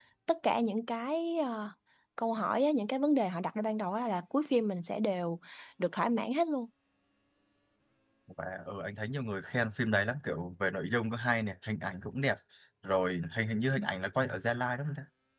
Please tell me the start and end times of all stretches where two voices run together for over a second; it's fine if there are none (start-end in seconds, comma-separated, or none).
none